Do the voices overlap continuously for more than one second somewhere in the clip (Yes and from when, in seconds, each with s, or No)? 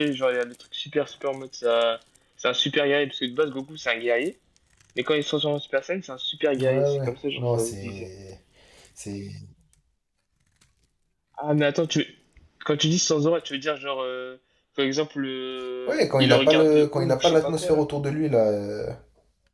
Yes, from 6.6 s